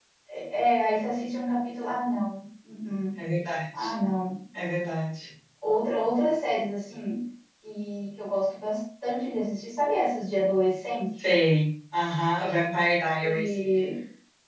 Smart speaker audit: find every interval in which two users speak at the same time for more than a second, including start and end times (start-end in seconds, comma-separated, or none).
none